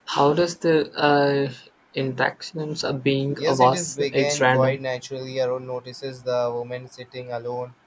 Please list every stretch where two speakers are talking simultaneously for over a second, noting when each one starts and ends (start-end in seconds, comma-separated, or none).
3.4-4.8